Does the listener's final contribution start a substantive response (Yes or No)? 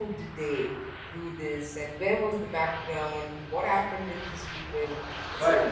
Yes